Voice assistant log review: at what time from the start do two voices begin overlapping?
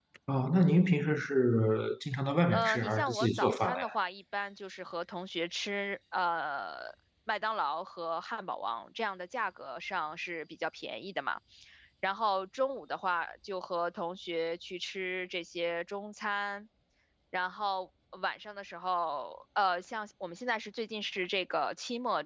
2.5 s

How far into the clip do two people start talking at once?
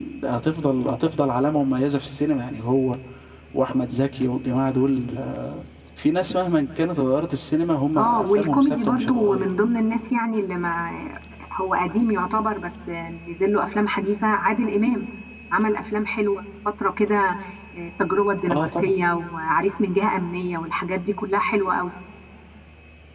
8.0 s

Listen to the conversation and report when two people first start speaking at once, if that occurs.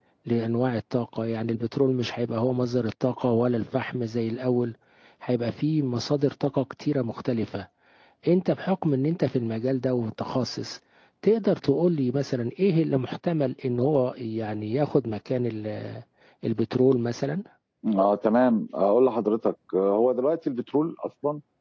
none

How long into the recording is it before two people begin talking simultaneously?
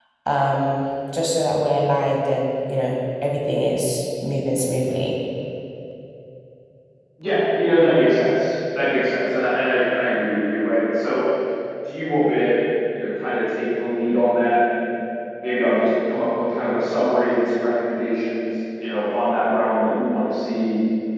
none

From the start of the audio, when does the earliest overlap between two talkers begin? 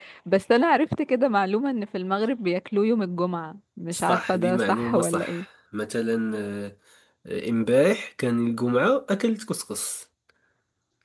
3.9 s

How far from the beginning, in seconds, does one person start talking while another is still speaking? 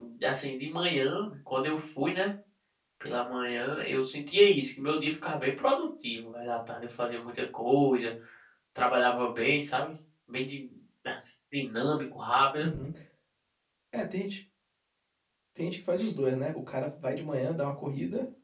none

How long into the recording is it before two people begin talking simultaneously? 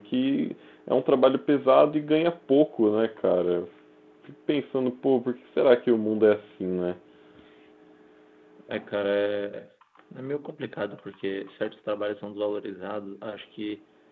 none

